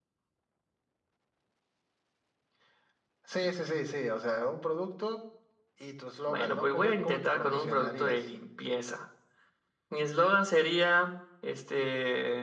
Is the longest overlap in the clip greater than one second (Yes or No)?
Yes